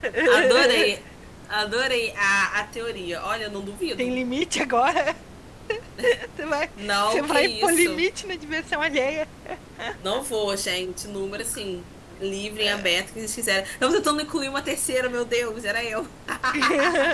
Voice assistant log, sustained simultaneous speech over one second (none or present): present